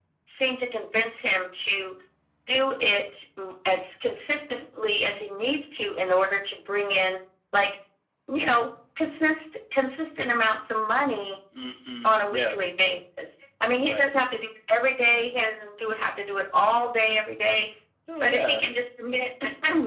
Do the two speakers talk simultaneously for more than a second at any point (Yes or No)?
No